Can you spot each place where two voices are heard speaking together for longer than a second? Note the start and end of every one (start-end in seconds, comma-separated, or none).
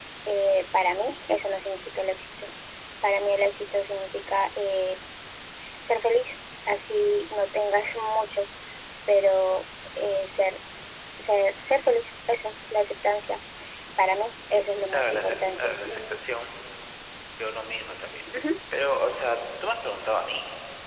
14.9-16.2